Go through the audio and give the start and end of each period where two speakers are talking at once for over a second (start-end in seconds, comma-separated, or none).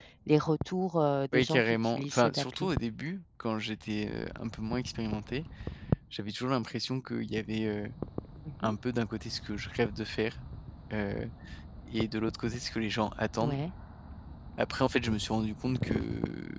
1.3-2.7